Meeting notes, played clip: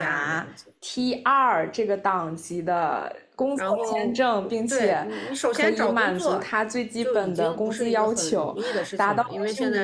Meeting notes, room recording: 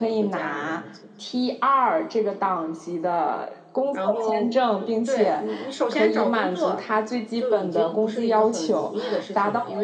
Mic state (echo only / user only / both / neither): echo only